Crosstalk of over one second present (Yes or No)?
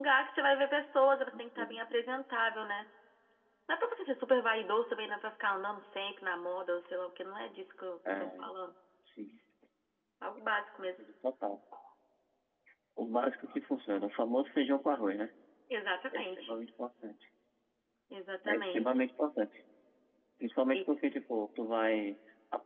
No